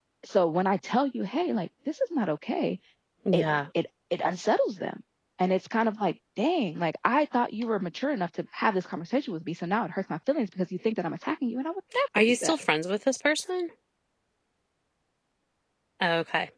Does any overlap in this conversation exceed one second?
No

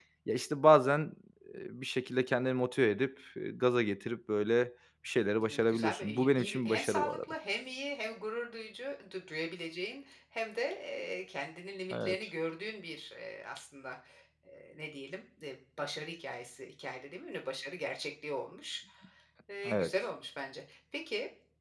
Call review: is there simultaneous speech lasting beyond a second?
Yes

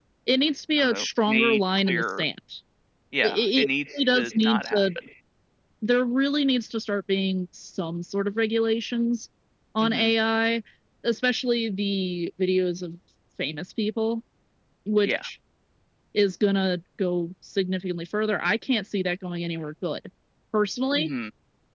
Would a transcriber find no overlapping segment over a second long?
No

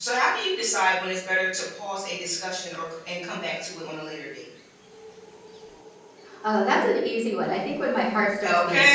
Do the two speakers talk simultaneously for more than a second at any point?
No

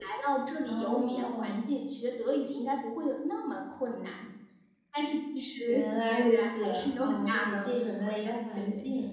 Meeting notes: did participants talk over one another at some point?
Yes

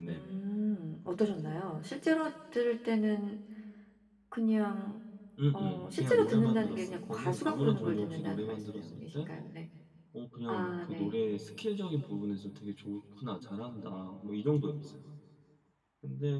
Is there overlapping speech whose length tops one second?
Yes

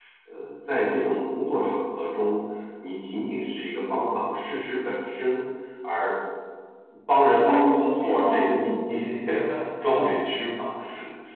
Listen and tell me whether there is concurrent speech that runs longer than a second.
Yes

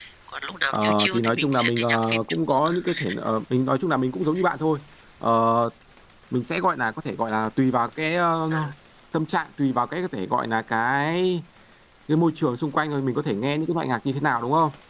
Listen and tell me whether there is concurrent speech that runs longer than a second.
Yes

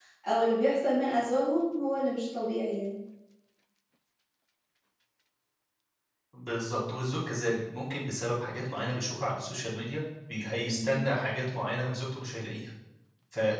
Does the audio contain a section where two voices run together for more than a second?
No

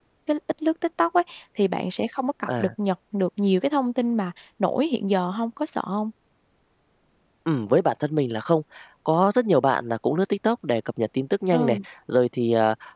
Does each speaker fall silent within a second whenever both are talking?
Yes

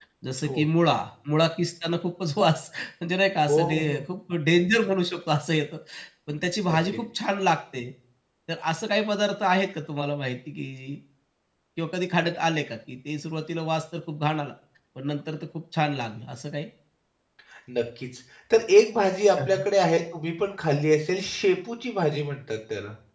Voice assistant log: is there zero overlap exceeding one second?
Yes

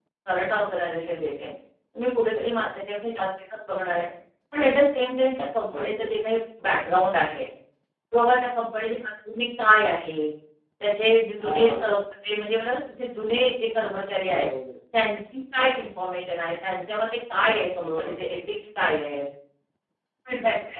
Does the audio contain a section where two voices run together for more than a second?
No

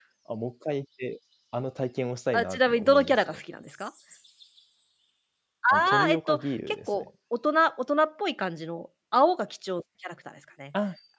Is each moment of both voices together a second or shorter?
No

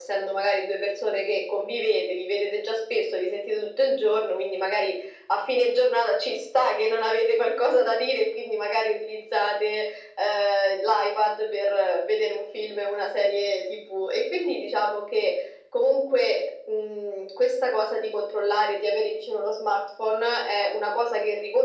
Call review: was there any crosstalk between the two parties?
No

